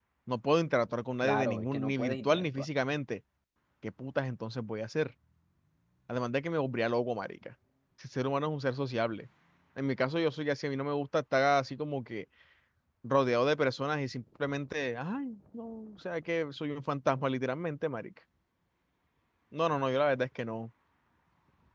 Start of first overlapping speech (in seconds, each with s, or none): 1.2 s